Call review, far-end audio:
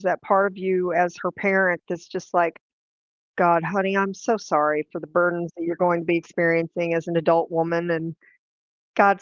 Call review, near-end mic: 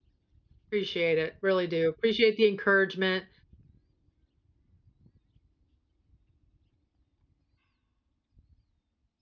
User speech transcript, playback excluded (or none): Appreciate it, really do. Appreciate the encouragement,